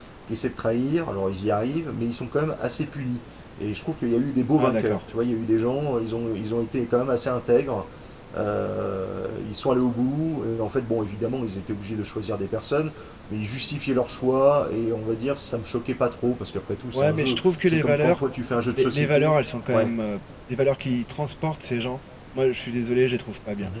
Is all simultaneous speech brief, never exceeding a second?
No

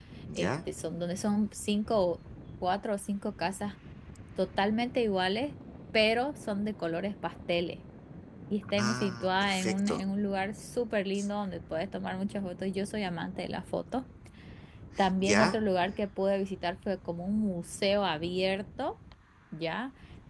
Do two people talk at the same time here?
Yes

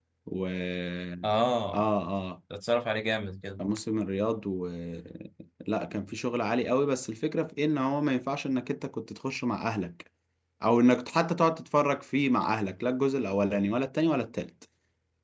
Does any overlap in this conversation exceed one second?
No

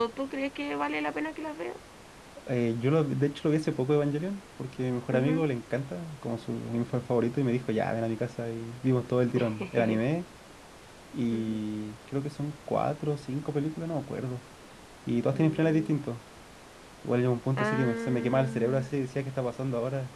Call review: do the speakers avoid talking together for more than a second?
No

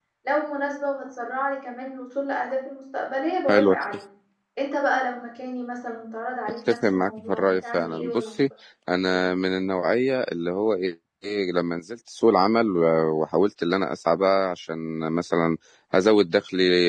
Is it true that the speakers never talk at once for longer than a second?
No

